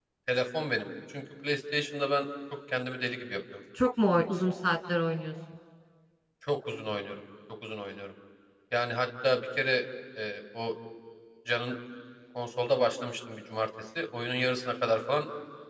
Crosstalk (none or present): none